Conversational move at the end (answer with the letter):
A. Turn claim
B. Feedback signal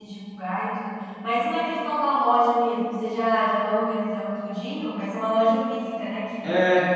A